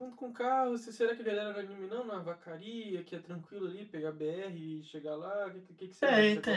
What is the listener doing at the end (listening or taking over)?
taking over